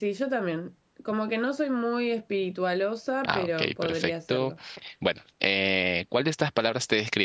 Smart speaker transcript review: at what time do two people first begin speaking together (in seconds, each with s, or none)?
3.2 s